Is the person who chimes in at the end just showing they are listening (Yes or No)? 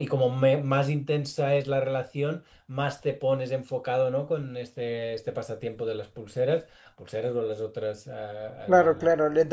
No